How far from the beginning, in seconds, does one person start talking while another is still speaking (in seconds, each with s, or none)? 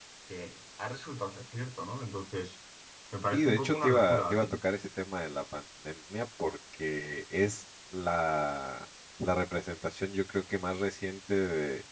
3.3 s